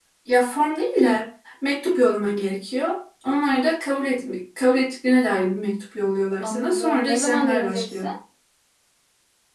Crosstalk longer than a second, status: present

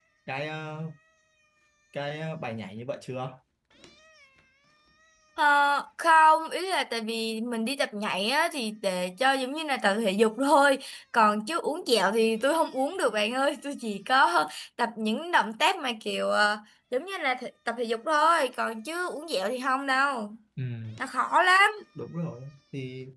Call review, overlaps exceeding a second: none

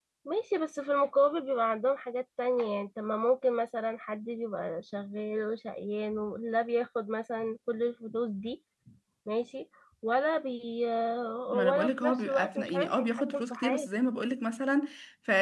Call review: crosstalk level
present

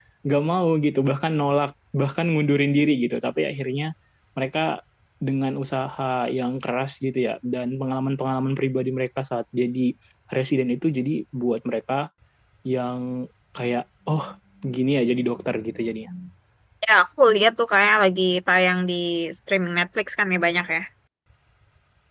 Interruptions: none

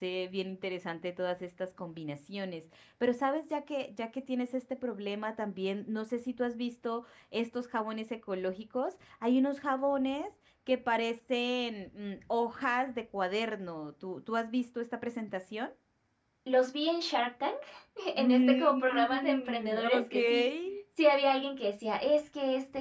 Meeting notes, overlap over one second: present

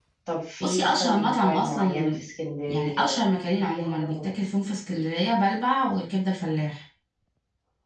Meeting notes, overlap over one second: present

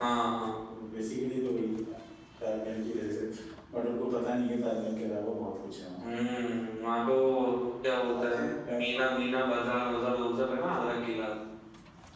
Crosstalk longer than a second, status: present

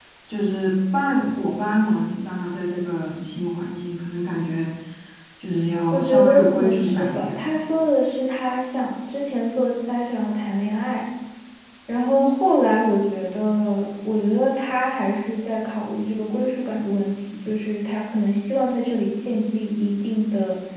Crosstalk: present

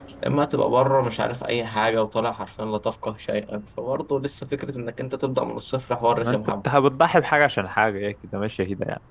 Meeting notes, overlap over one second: none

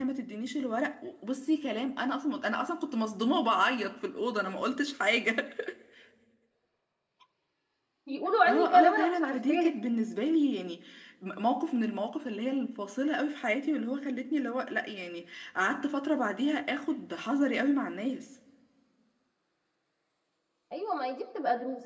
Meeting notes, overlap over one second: present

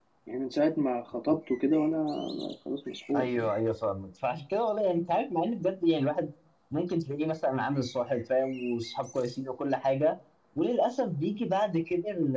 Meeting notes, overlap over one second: none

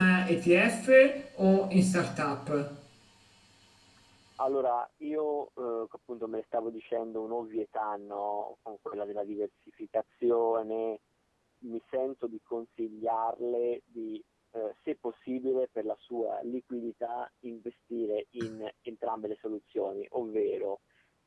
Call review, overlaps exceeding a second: none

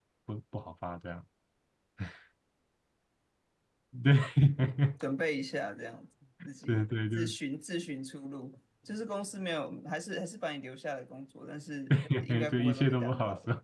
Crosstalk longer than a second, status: present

